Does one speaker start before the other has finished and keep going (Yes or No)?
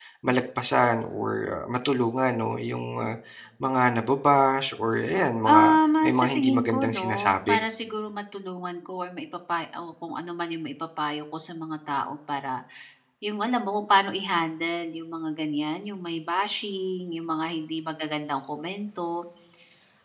Yes